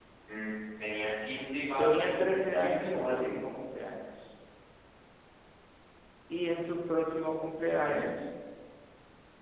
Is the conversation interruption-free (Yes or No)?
No